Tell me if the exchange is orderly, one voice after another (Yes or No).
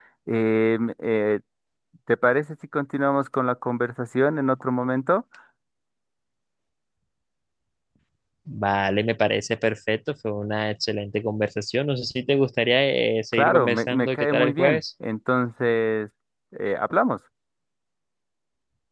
No